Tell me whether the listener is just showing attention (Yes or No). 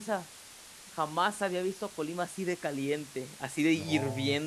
No